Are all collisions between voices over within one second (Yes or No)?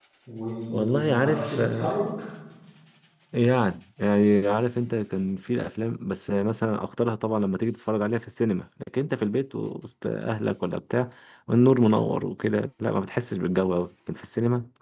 No